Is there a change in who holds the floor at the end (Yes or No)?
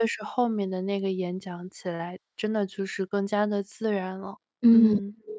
Yes